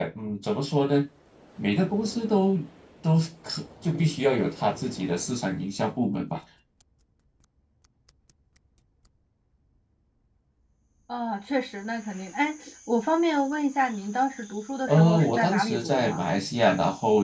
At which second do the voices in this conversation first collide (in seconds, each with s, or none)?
14.9 s